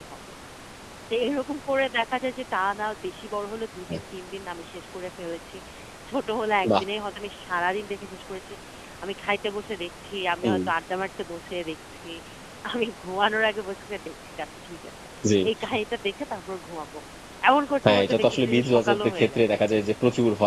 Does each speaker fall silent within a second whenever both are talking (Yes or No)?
No